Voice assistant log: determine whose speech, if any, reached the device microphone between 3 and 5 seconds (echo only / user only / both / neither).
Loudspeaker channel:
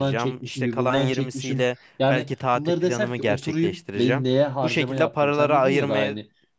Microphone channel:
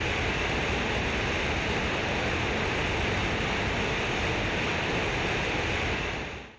neither